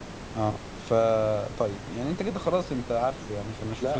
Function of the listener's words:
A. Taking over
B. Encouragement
A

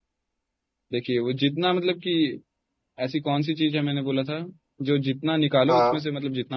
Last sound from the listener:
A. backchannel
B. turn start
A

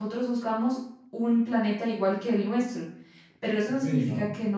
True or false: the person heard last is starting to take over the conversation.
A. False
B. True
A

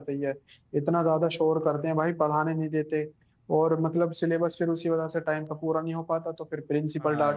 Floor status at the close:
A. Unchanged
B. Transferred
B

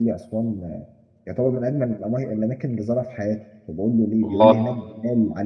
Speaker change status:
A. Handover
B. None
B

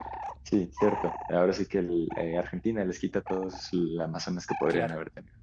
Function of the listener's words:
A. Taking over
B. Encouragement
A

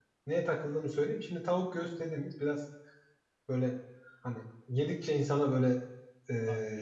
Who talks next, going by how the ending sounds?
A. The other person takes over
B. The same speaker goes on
B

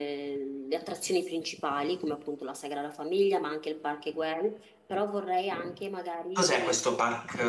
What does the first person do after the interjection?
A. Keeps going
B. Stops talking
B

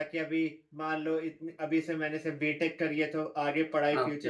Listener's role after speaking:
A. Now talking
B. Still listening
B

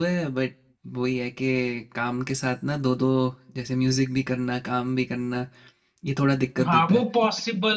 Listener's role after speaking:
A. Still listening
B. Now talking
B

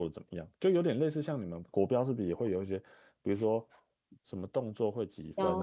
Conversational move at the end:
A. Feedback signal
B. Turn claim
A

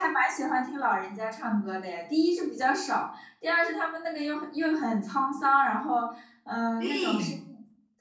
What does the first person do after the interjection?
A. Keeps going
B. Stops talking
A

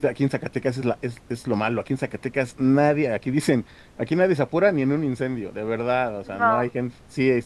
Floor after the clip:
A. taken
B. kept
B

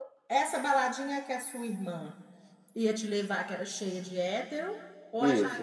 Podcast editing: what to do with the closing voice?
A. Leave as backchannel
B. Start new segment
B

